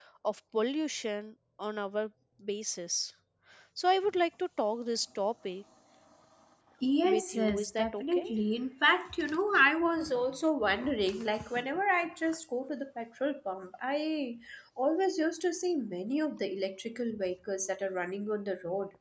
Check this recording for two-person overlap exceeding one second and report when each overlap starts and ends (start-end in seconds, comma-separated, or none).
7.0-8.2